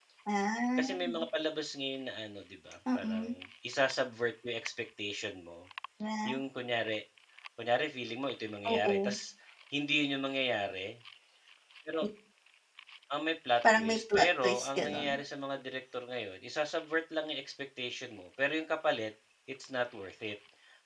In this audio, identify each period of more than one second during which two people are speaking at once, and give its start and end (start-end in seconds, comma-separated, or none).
13.8-15.2